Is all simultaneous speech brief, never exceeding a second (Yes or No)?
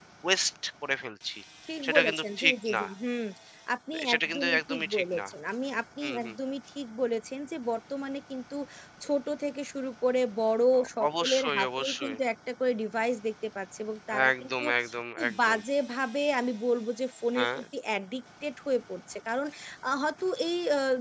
No